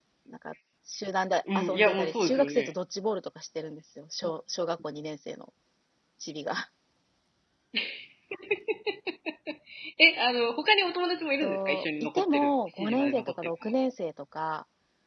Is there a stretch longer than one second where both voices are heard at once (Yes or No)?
Yes